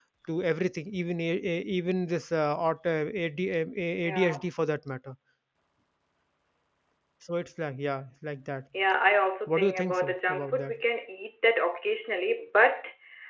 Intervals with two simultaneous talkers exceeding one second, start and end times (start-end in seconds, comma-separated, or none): 9.5-10.7